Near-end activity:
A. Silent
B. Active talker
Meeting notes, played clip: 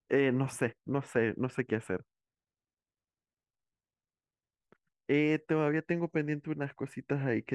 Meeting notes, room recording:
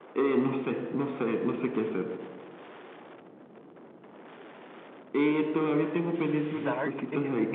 B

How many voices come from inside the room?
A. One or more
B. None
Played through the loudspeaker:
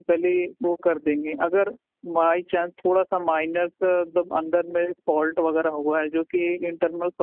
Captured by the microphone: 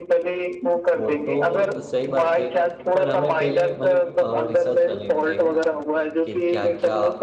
A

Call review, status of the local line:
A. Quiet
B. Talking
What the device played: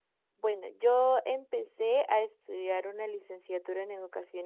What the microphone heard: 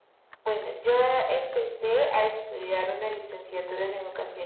A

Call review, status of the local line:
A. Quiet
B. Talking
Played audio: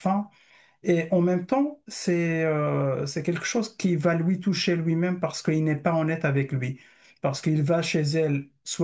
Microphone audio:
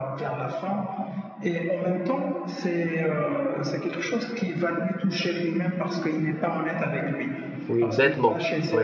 B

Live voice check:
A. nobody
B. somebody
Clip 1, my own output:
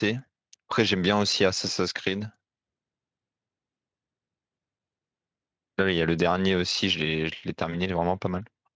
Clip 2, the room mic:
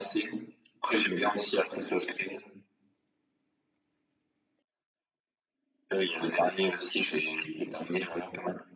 A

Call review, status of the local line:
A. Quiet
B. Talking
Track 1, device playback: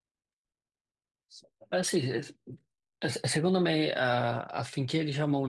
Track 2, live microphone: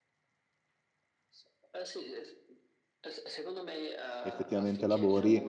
B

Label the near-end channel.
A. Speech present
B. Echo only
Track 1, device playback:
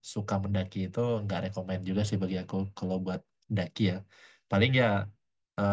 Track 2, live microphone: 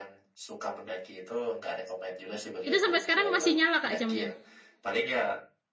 A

